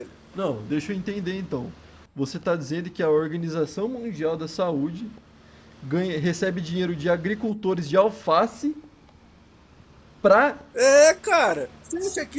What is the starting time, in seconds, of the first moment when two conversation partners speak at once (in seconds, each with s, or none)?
none